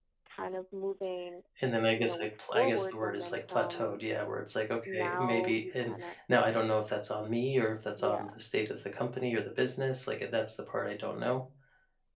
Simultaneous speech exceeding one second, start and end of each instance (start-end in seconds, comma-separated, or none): 1.9-4.0, 4.8-6.1